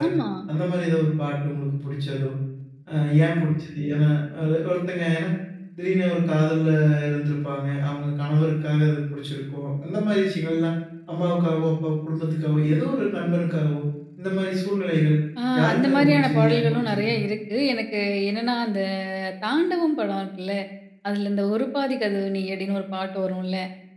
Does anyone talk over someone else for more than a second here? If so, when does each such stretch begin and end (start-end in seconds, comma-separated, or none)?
15.6-17.1